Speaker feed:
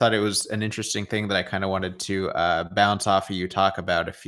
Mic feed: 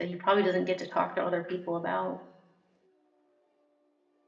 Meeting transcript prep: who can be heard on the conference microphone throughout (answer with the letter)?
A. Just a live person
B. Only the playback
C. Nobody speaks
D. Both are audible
A